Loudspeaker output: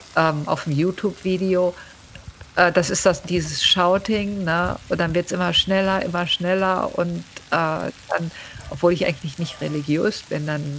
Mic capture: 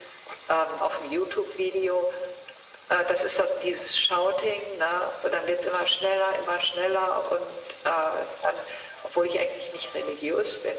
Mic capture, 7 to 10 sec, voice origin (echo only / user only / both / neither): echo only